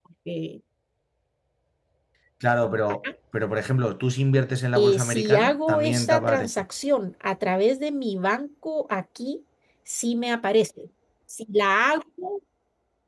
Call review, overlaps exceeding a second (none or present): present